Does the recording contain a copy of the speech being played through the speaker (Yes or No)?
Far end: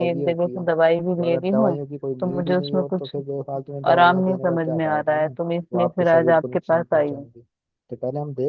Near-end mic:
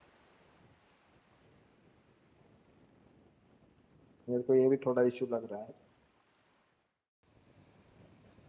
No